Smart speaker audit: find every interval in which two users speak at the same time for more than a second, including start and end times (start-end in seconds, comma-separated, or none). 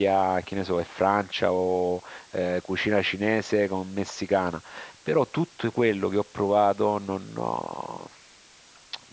none